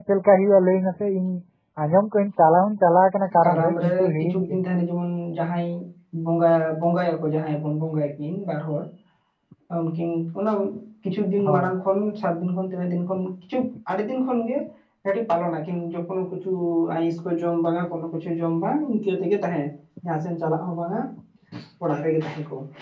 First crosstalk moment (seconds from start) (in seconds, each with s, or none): 3.4 s